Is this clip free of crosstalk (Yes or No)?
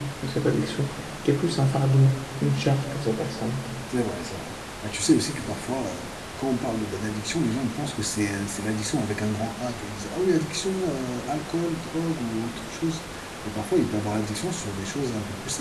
Yes